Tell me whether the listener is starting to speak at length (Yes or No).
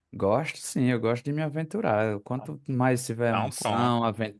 No